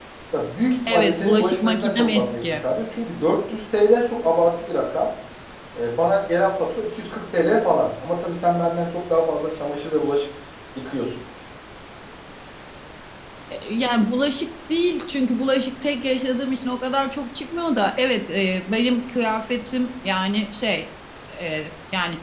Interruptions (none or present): present